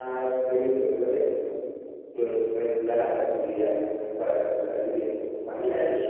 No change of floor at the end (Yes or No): No